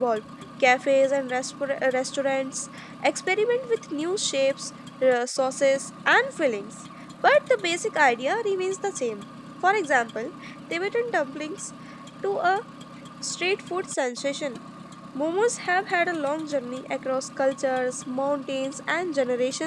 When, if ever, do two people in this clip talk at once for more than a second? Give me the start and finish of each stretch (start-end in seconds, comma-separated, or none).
none